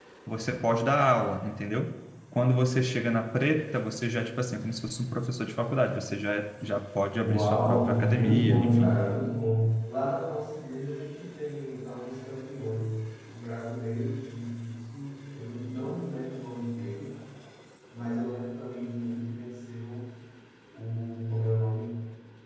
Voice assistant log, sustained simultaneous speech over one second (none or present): present